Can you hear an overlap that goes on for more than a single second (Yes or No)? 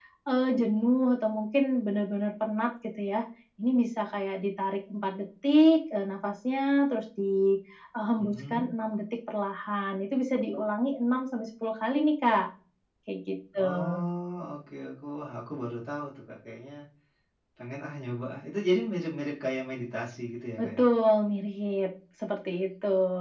No